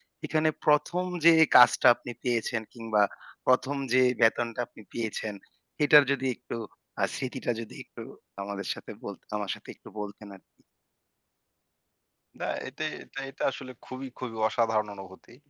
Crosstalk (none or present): none